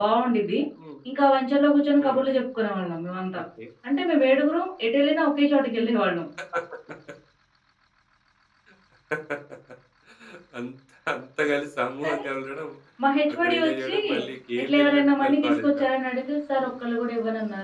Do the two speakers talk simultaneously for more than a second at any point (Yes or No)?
Yes